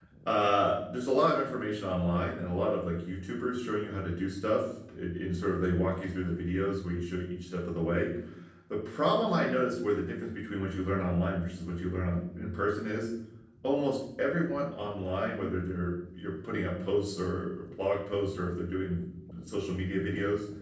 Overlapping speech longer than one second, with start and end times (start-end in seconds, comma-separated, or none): none